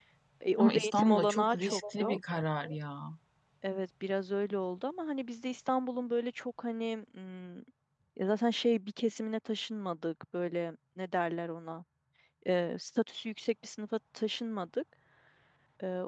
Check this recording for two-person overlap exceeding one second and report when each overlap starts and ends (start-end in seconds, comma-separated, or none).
0.6-2.2